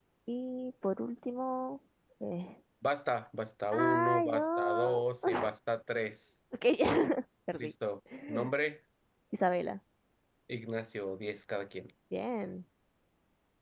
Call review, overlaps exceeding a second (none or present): present